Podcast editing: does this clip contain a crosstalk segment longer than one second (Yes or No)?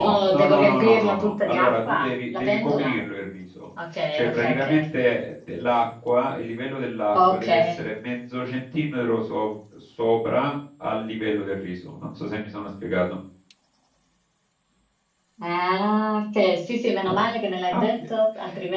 Yes